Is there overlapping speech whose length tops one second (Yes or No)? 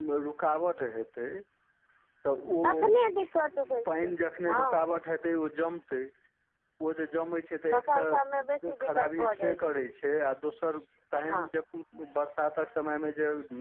Yes